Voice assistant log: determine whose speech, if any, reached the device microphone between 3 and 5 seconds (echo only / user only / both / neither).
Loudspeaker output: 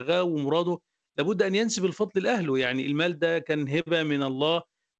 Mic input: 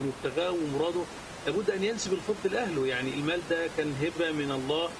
echo only